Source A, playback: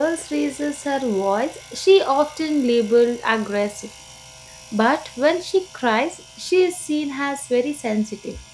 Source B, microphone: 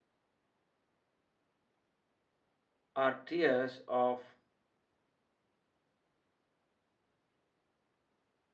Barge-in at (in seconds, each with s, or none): 3.0 s